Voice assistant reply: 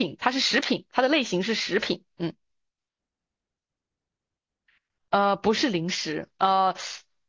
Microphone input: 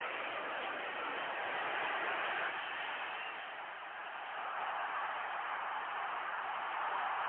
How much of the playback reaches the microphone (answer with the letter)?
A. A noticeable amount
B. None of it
B